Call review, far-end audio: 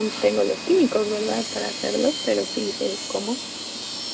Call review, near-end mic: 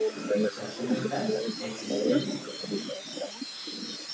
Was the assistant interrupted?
Yes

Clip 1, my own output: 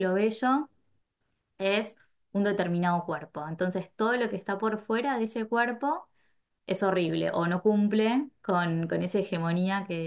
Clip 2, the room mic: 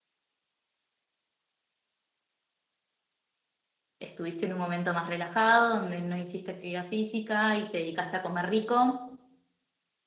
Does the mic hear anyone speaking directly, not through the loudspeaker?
Yes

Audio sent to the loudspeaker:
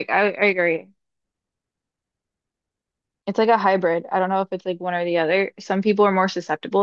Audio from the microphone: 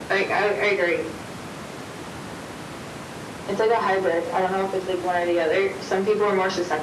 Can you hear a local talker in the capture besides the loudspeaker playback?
No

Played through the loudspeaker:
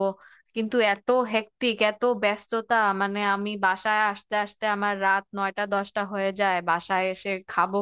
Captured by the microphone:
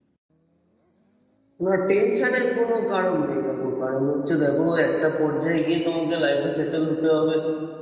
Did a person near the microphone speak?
Yes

